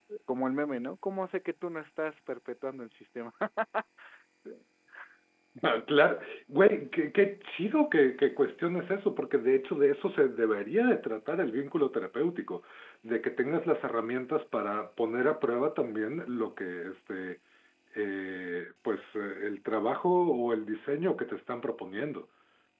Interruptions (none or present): none